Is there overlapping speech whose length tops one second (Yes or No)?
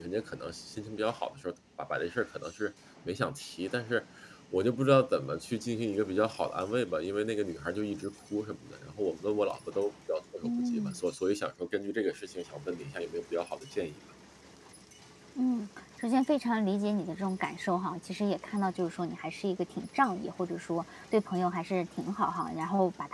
No